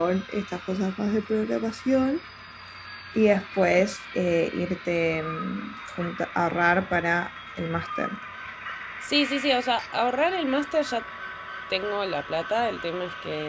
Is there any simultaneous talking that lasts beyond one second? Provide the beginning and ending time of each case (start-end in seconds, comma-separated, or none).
none